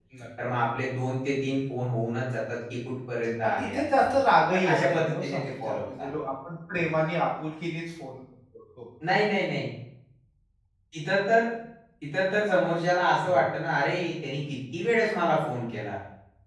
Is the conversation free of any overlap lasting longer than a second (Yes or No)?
No